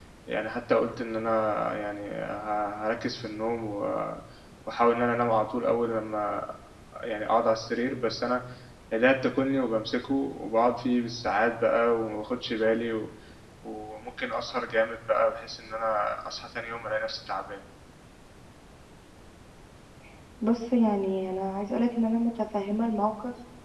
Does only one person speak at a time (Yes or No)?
Yes